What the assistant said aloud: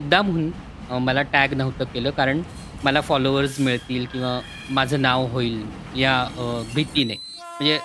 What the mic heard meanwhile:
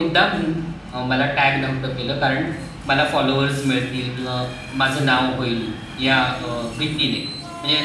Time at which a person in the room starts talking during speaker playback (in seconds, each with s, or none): none